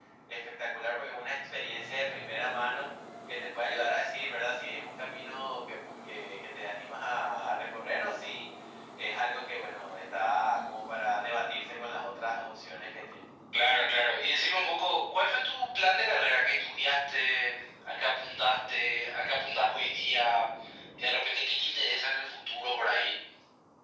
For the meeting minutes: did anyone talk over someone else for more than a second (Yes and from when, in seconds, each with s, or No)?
No